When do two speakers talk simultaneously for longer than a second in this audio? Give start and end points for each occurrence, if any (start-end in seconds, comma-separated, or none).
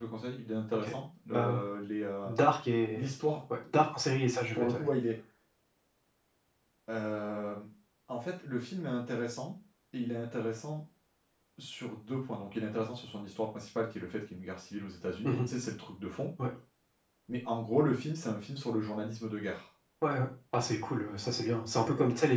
none